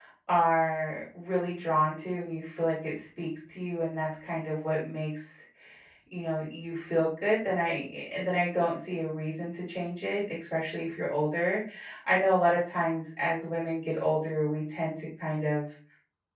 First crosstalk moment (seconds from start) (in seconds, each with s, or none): none